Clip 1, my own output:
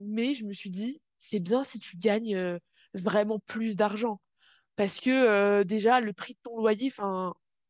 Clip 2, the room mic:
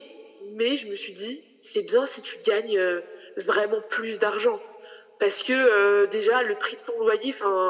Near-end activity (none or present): none